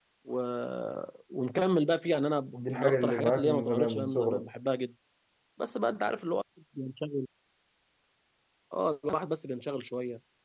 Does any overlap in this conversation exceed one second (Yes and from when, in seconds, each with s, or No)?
Yes, from 2.5 s